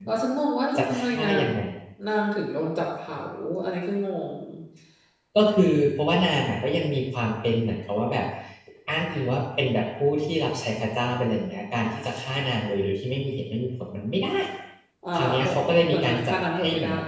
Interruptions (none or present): present